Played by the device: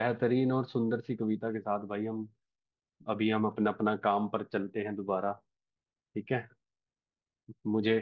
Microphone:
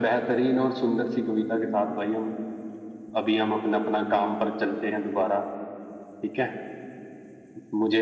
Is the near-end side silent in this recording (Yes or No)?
Yes